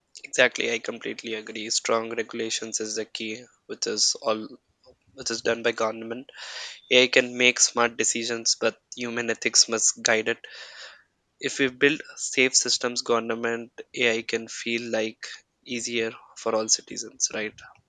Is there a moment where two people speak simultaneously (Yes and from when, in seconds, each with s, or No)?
No